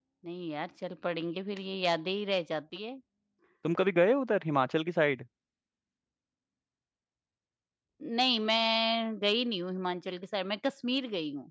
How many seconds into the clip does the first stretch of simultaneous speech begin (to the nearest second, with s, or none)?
none